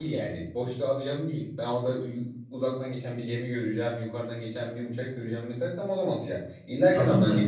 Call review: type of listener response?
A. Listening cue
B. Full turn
B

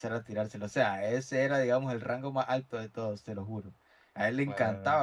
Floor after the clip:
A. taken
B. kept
B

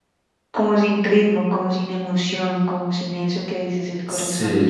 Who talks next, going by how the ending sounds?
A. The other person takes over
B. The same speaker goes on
B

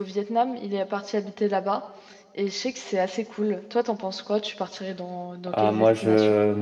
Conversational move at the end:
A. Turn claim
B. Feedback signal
A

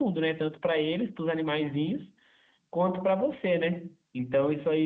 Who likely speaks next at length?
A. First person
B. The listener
A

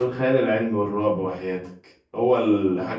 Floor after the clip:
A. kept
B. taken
A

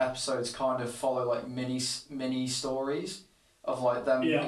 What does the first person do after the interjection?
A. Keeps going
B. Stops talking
A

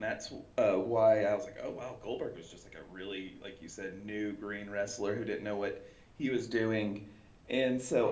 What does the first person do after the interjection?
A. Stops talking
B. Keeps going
B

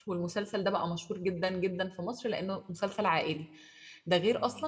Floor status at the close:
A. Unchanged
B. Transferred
A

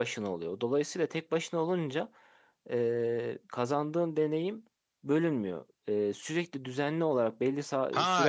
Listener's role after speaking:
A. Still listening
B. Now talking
B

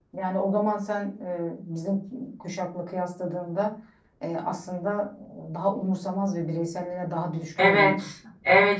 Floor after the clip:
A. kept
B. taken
B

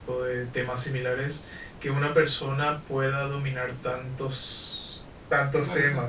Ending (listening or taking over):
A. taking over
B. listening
B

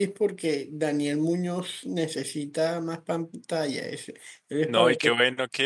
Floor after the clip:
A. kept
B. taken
B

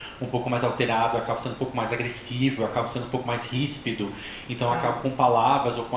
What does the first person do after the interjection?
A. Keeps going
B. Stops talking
A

